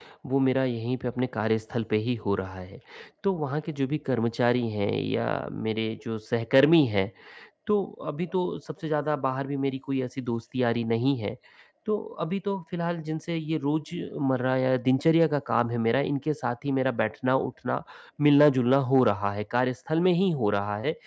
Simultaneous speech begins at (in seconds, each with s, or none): none